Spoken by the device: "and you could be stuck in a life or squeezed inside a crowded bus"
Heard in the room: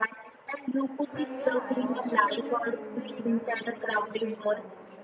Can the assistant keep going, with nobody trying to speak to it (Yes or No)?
No